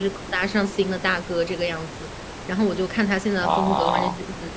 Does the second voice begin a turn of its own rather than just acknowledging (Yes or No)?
No